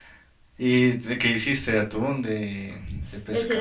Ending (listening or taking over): taking over